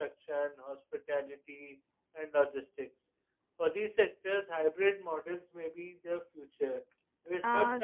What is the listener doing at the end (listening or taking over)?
taking over